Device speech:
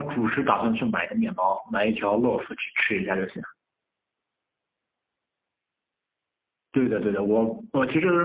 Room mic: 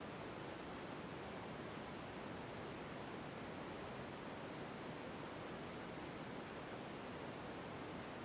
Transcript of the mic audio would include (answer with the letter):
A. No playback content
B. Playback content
A